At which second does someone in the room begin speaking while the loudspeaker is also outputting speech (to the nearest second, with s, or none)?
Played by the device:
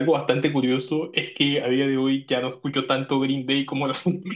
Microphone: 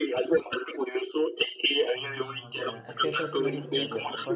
2 s